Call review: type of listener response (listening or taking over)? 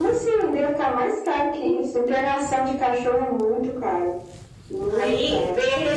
taking over